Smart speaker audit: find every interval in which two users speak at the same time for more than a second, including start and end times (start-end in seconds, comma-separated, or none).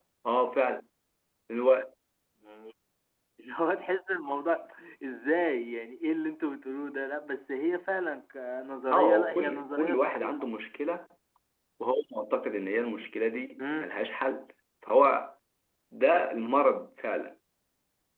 8.9-10.3